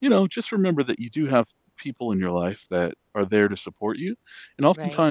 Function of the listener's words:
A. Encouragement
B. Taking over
A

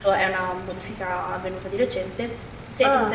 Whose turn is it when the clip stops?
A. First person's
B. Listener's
A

